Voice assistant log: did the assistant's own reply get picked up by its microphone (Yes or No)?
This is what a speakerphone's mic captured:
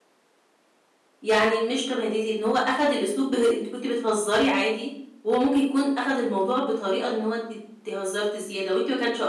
No